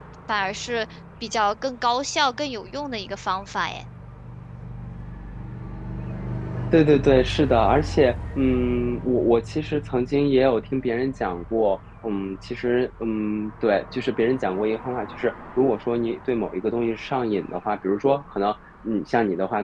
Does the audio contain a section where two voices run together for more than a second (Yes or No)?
No